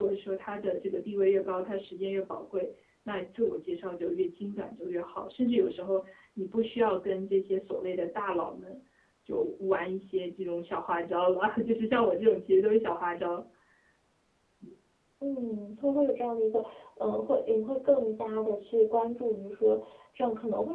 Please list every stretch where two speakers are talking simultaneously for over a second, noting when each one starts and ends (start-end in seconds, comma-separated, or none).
none